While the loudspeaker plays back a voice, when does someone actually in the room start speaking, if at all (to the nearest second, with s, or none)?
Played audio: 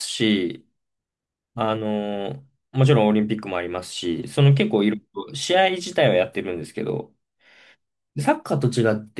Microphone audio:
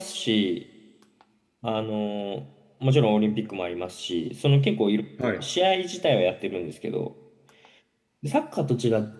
5 s